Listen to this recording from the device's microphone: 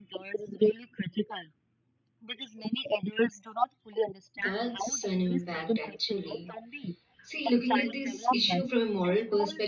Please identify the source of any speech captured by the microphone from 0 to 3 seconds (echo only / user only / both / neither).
echo only